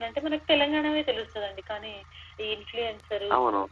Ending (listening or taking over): listening